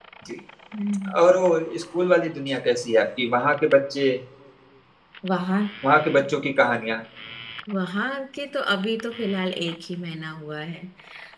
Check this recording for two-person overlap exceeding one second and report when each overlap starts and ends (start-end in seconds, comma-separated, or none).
none